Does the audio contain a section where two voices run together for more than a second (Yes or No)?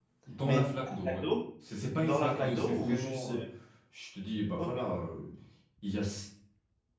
Yes